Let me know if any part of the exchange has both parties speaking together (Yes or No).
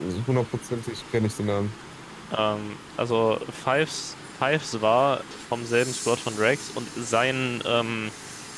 No